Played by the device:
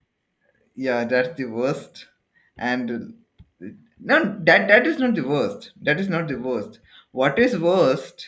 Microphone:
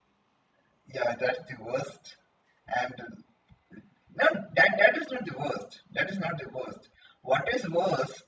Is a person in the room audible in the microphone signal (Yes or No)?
No